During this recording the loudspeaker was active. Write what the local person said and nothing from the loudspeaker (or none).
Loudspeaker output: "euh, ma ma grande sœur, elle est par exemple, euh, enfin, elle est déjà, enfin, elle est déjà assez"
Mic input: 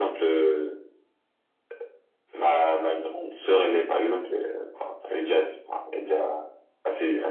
none